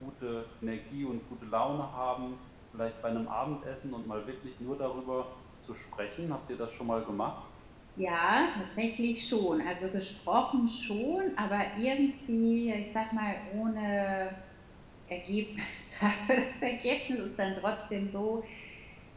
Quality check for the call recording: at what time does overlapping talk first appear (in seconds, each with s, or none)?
none